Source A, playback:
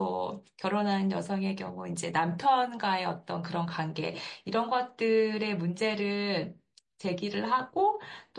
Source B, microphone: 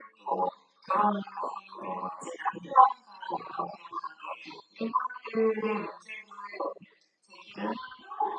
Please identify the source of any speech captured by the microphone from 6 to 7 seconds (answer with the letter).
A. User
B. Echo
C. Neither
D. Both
B